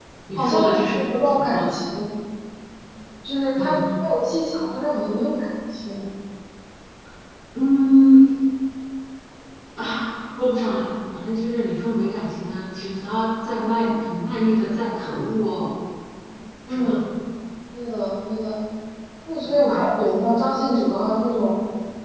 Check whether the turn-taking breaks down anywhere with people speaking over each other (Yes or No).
Yes